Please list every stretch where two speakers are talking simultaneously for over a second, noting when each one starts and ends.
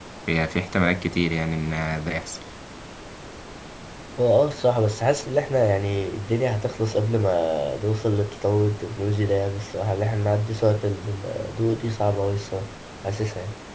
none

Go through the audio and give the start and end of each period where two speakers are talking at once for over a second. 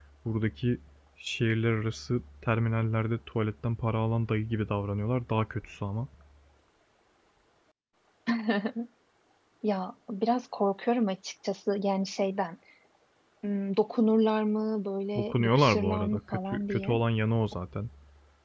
15.2-17.0

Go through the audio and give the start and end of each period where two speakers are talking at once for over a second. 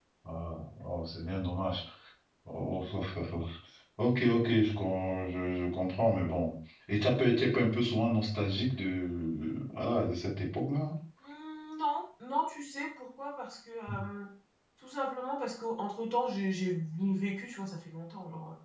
none

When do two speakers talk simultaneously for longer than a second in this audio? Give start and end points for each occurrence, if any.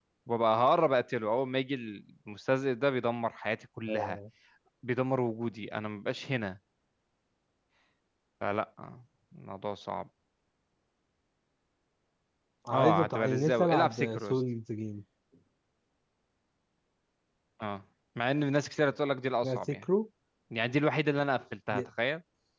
12.7-14.4

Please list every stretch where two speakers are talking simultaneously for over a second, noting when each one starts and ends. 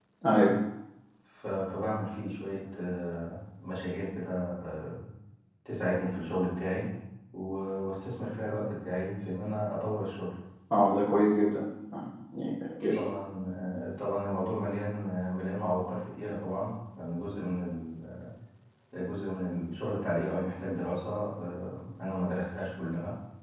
none

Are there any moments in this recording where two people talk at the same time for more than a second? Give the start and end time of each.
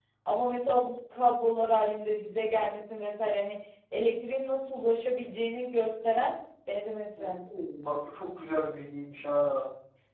none

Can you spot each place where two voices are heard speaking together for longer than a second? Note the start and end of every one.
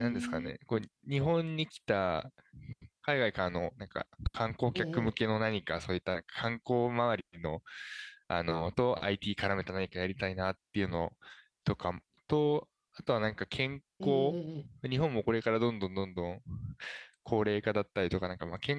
none

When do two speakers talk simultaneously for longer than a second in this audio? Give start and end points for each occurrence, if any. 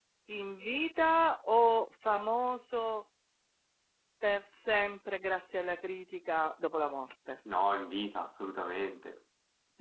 none

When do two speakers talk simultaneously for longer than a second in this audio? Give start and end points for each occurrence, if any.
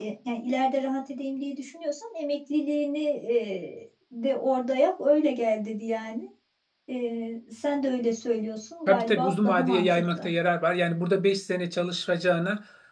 8.9-10.3

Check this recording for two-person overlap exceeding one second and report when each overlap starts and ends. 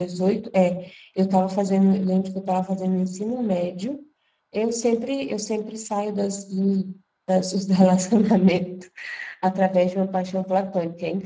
none

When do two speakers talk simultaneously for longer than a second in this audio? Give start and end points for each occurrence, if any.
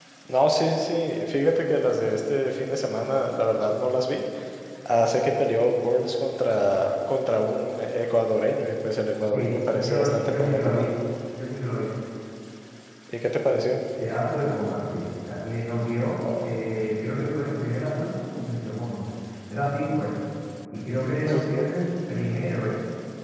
9.3-10.8

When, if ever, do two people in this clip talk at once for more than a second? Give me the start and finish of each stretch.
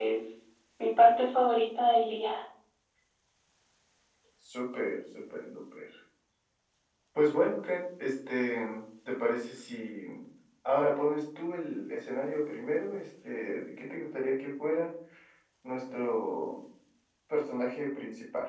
none

